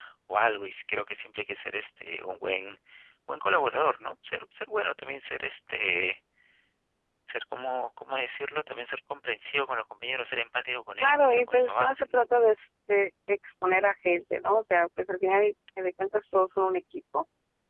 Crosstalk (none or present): present